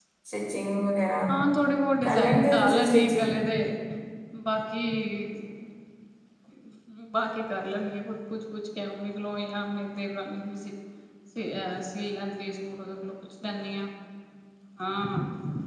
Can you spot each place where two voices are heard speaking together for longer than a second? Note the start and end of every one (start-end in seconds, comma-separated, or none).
2.0-3.4